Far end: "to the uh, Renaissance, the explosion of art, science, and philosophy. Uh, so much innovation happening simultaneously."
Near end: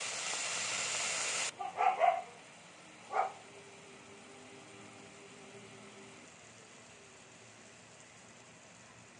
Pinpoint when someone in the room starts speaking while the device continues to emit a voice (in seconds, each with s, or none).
none